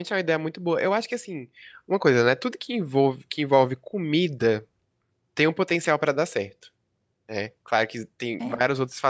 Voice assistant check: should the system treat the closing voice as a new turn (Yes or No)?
No